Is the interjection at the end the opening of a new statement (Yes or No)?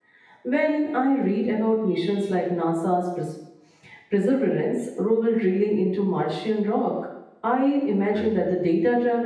No